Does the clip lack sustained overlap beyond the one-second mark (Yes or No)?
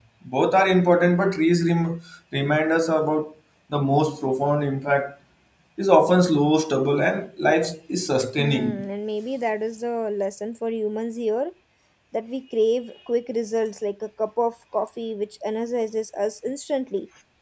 Yes